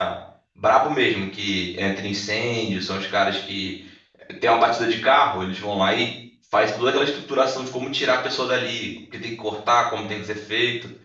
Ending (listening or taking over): listening